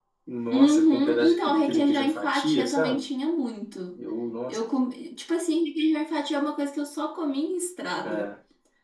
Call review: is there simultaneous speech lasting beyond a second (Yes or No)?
Yes